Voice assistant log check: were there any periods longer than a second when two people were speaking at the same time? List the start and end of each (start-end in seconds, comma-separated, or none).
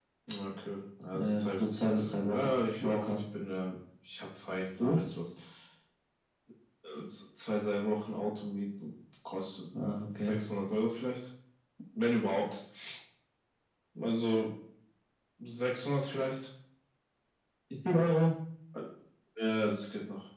1.1-3.2